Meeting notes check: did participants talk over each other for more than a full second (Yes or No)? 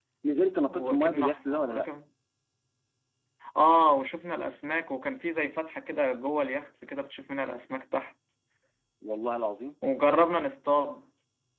Yes